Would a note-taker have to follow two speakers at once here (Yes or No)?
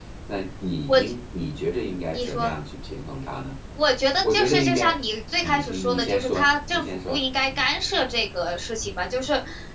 Yes